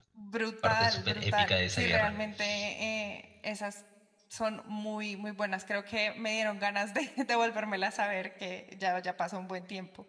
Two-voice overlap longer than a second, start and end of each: 0.6-2.1

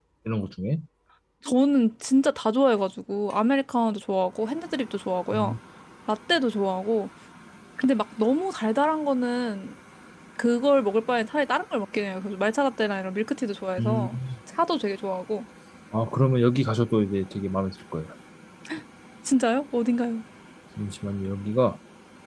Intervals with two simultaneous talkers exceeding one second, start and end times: none

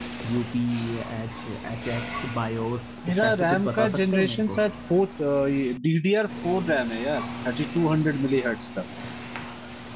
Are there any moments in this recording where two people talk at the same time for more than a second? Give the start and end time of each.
3.1-4.6

